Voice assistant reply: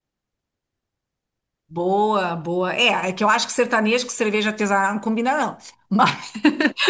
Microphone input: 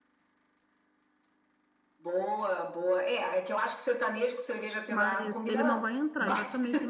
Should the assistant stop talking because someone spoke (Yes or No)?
Yes